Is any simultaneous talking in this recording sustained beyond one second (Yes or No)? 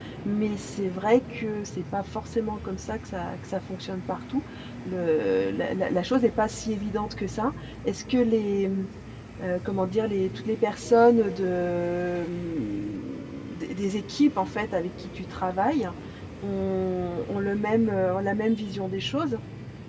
No